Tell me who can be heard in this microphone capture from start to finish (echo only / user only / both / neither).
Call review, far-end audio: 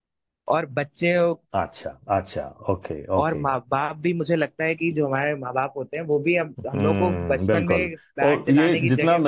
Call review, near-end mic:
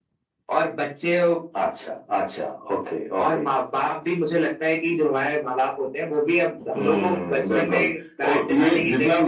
echo only